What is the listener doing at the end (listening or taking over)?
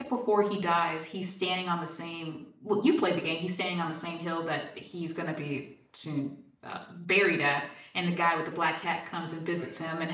listening